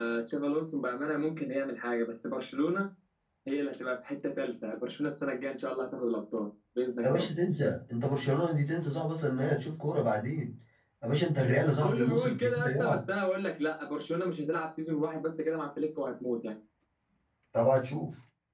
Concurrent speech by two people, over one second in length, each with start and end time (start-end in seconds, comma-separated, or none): 11.8-13.0